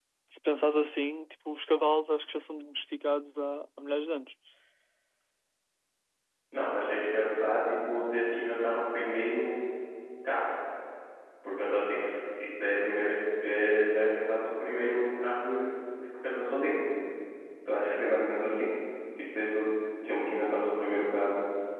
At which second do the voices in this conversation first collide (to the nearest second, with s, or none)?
none